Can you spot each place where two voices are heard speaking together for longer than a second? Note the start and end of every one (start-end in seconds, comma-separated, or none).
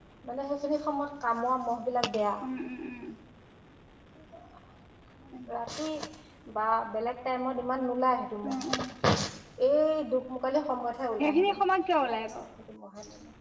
none